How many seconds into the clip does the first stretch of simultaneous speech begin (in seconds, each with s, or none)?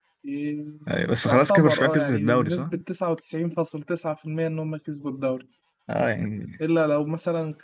1.2 s